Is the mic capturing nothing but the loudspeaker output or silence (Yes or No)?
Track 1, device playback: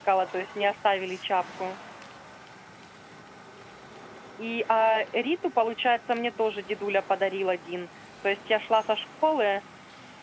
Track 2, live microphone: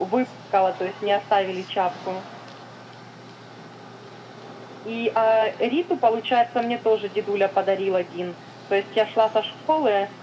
Yes